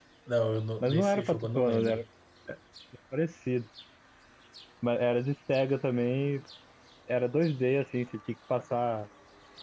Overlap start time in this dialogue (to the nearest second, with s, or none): 1 s